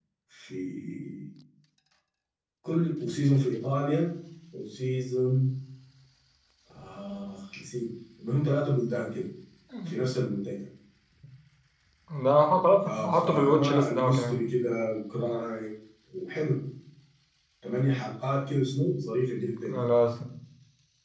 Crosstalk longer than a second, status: present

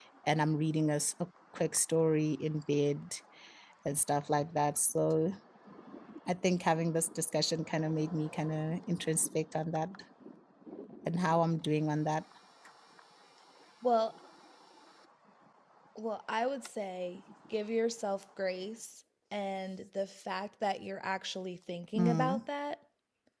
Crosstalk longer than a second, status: none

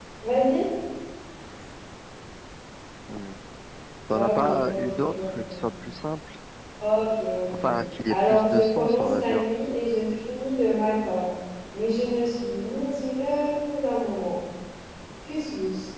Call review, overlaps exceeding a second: present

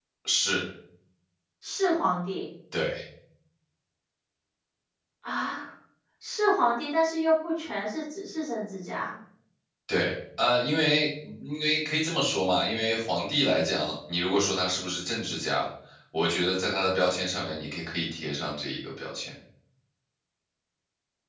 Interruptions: none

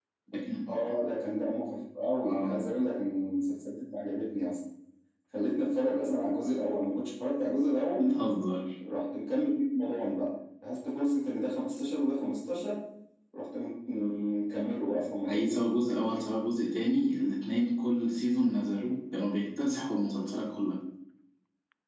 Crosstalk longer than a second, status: none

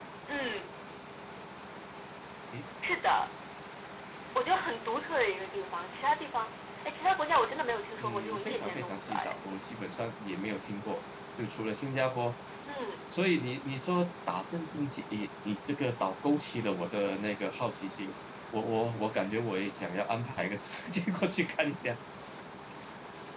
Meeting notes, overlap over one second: present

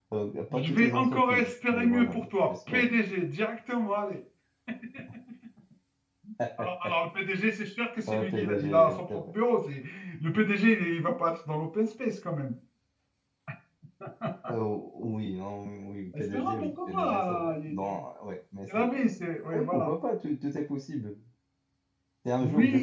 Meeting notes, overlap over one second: present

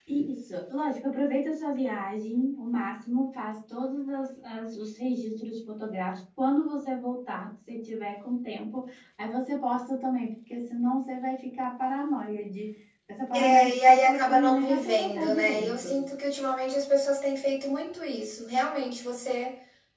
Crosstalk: present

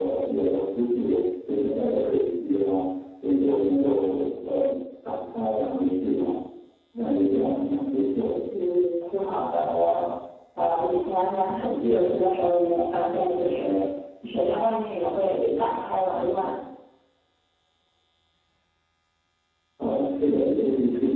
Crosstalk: none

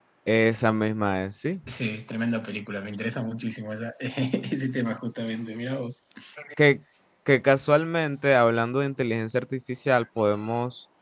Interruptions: none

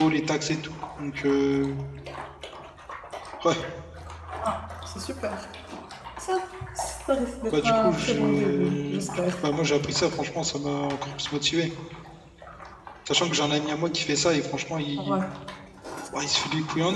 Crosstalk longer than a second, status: present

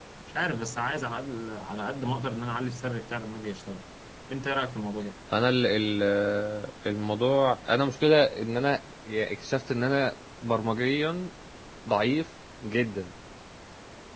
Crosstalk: none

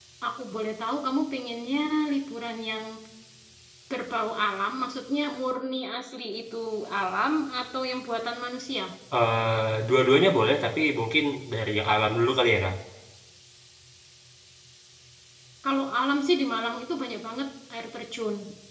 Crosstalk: none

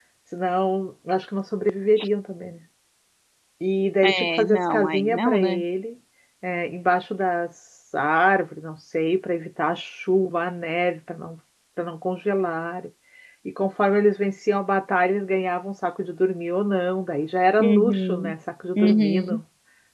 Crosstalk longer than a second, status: present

